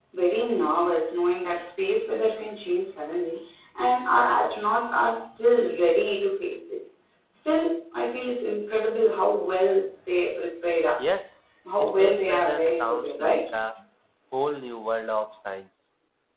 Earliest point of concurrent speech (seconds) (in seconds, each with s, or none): 11.8 s